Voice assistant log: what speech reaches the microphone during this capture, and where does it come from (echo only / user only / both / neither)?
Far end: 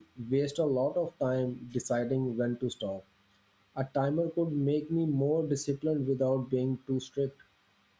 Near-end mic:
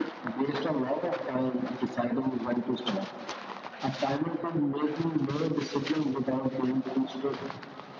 echo only